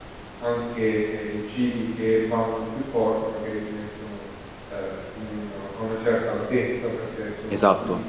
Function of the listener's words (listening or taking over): listening